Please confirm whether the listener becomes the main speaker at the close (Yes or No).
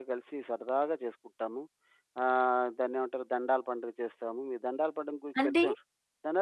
No